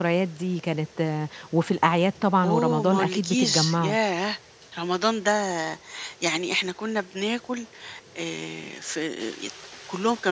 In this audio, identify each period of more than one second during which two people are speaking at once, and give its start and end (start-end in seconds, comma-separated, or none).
2.4-4.0